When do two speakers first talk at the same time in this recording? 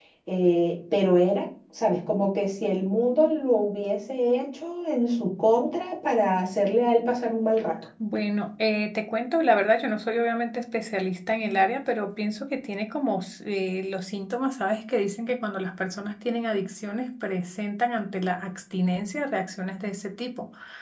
none

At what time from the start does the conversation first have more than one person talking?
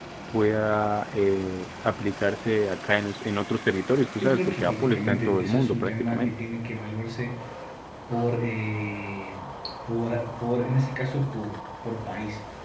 4 s

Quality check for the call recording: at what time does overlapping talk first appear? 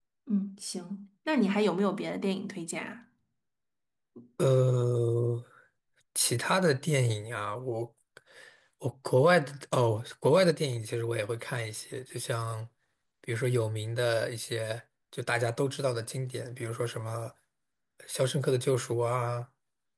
none

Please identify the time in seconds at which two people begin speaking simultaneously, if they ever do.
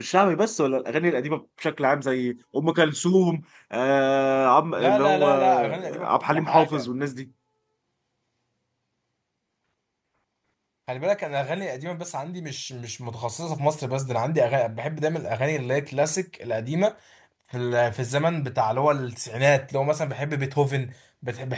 5 s

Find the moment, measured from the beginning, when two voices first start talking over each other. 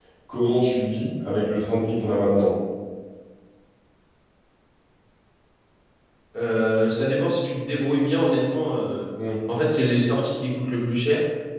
none

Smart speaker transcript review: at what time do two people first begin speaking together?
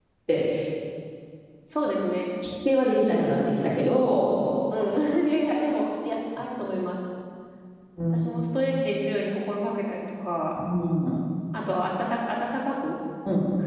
none

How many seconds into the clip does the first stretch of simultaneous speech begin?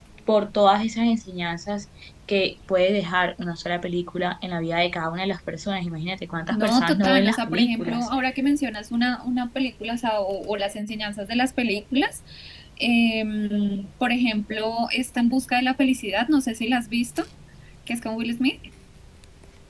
7 s

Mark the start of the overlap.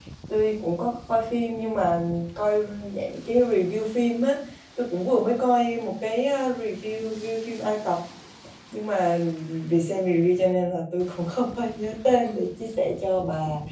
none

